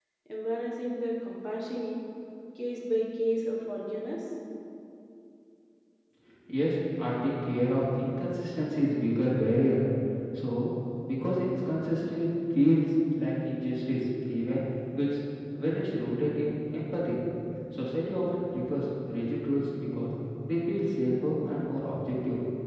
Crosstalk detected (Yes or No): No